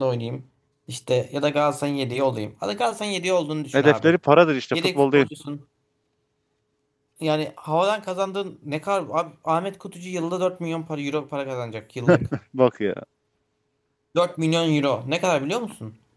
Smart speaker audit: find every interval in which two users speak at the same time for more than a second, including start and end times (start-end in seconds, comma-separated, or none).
none